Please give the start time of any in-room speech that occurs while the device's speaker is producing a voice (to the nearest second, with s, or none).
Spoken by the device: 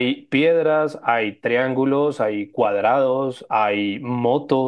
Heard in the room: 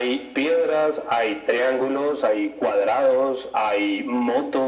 none